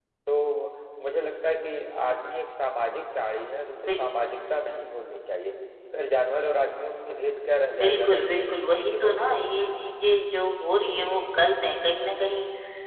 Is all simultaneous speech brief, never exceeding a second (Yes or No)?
No